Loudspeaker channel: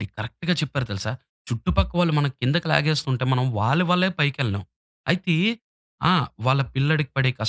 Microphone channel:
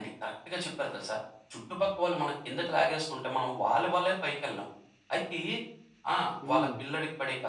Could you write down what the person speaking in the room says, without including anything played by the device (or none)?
హ్మ్.